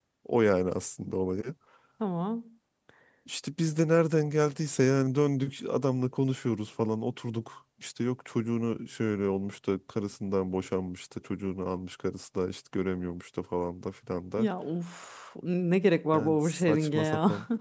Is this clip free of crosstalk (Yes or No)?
No